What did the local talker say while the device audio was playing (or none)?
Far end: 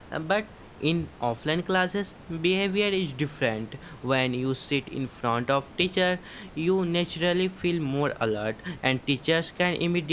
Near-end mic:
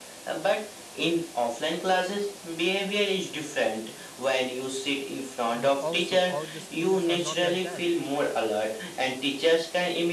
But also, all the students are not like that.